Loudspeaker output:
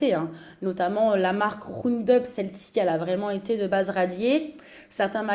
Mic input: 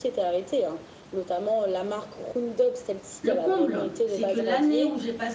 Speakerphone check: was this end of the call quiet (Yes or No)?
No